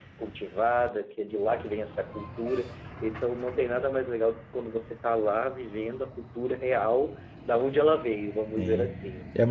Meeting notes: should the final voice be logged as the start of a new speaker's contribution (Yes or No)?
Yes